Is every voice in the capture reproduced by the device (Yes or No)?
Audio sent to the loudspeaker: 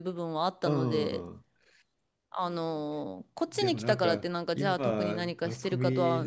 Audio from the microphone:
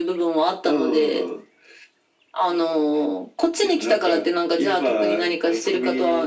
Yes